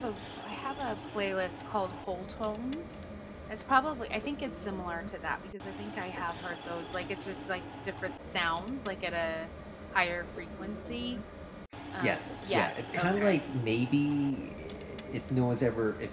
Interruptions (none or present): present